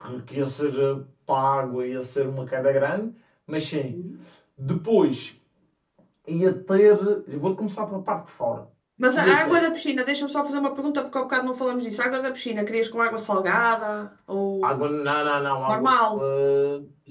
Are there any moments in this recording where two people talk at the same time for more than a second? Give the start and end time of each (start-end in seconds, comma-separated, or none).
none